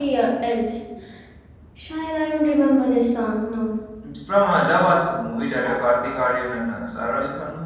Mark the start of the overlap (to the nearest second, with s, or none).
none